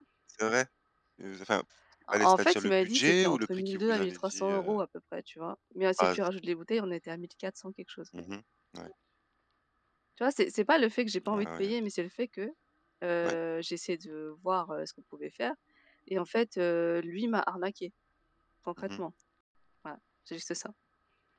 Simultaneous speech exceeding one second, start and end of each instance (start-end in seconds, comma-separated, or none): 2.1-4.8